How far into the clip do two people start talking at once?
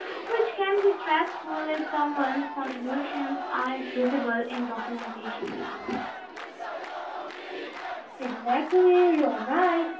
none

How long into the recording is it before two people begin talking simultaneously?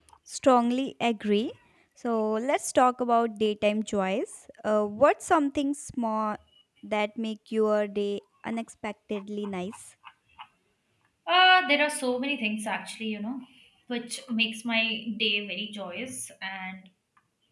none

